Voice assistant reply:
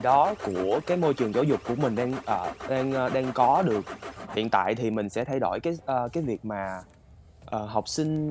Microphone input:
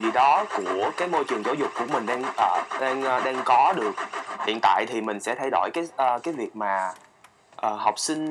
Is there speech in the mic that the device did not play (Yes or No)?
No